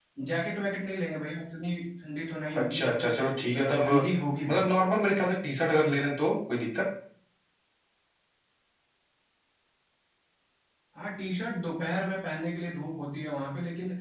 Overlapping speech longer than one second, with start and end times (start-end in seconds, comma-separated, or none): 2.6-3.9